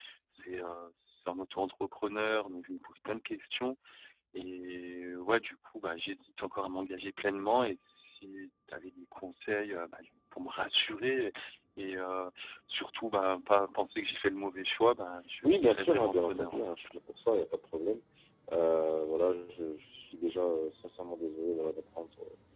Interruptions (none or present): present